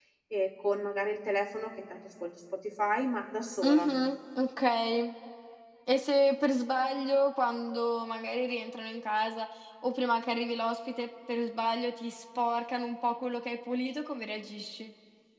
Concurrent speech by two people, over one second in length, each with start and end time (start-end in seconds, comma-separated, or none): none